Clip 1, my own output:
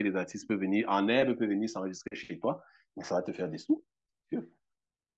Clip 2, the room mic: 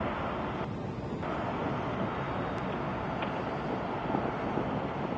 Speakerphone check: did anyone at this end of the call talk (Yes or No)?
No